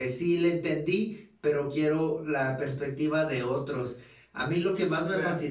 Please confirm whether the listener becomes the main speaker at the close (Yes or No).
No